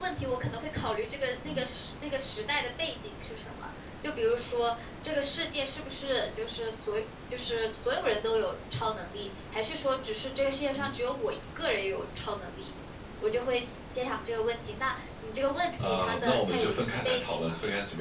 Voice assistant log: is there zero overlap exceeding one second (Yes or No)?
No